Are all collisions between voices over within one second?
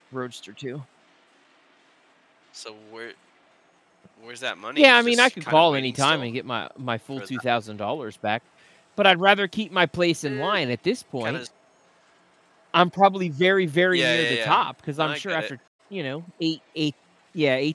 No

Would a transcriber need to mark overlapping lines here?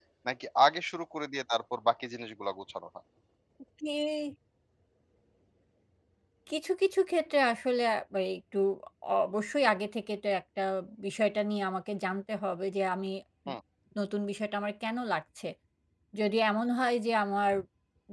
No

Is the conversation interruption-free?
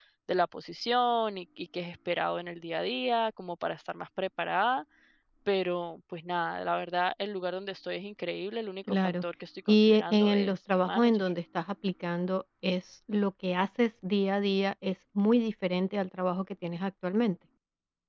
No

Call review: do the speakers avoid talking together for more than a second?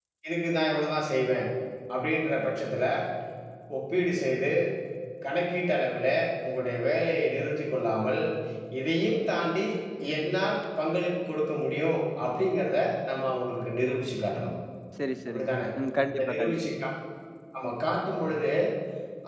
Yes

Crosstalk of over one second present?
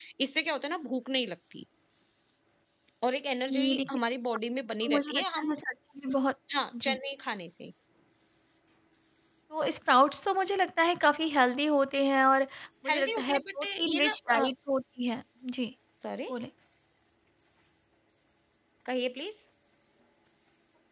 Yes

